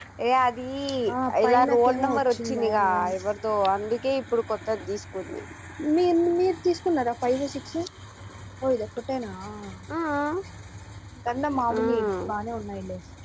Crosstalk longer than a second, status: present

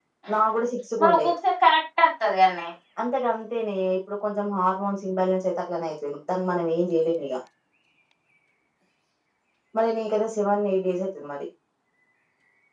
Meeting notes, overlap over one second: none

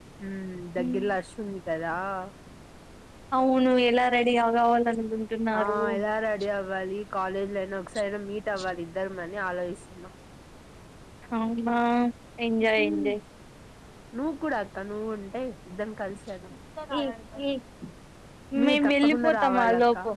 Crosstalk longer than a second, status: present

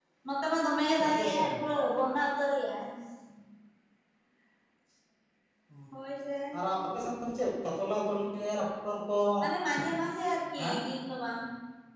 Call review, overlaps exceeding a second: none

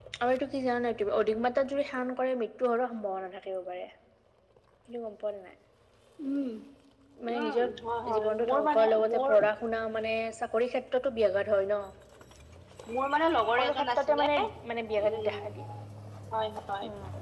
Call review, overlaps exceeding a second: present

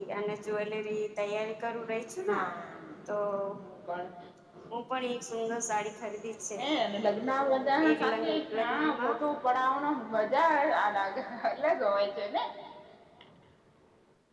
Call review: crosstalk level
present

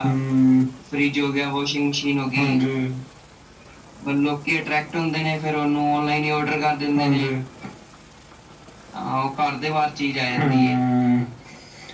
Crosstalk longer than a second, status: none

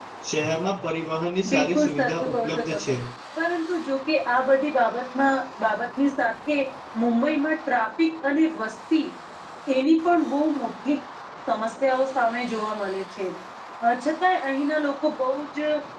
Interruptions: present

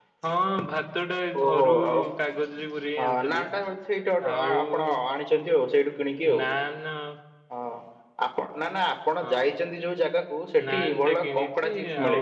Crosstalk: present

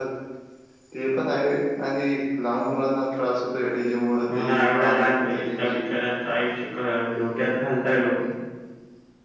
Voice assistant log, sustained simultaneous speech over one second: present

